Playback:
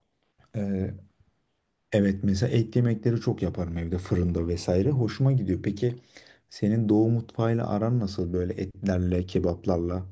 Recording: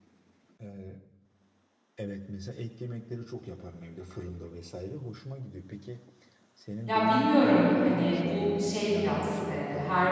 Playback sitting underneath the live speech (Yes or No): Yes